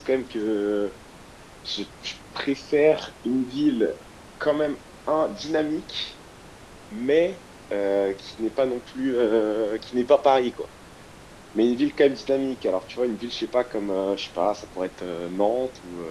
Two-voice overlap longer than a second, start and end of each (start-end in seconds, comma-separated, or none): none